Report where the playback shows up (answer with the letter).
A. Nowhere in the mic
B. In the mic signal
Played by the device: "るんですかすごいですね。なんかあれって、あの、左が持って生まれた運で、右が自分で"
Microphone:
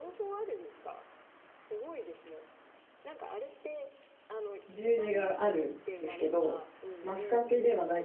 B